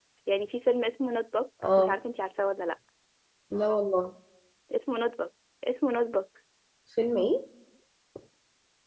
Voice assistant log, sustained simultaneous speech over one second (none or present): none